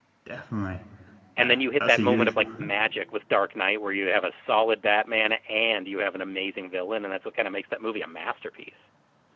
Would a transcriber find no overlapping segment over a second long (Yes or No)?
No